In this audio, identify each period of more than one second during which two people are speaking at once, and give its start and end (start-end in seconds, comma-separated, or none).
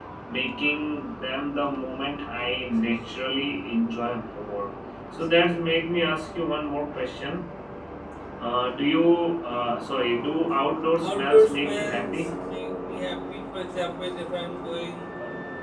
11.0-12.3